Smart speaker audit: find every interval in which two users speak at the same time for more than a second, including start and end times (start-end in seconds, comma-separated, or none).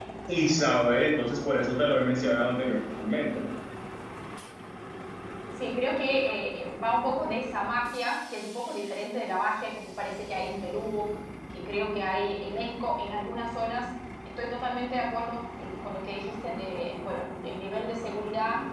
none